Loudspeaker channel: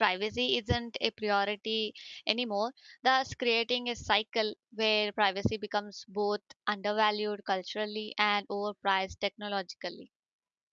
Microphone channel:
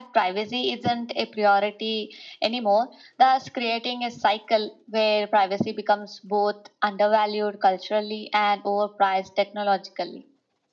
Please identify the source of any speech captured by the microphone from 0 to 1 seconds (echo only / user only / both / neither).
echo only